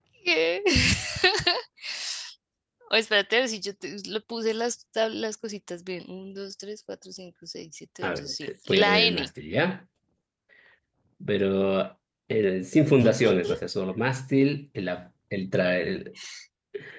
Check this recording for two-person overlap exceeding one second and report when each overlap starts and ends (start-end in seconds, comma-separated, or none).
8.0-9.3